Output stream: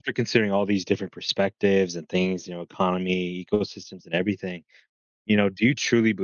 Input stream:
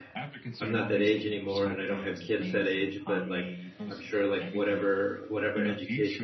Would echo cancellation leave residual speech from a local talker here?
Yes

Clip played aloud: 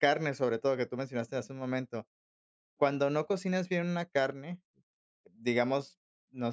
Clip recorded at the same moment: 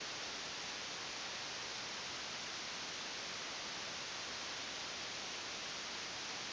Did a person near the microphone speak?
No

